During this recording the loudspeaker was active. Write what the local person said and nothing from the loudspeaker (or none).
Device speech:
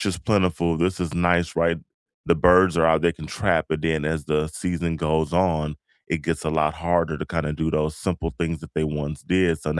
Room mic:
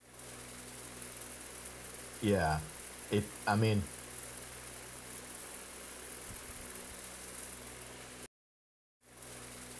Yeah. It, I mean,